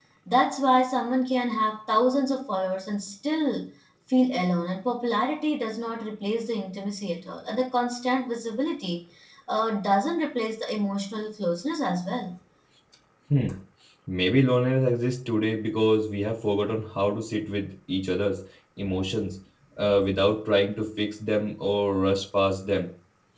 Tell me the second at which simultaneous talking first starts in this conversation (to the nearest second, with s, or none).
none